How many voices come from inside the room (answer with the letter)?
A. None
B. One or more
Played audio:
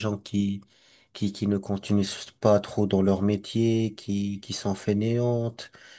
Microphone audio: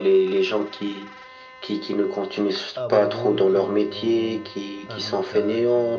B